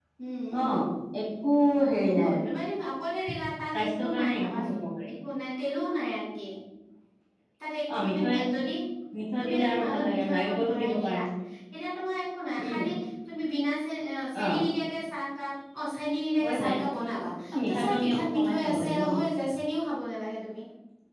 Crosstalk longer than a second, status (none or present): present